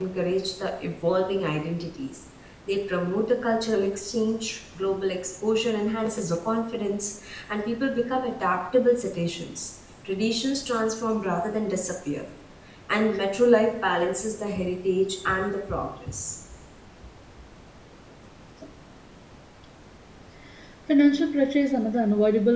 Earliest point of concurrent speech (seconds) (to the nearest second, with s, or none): none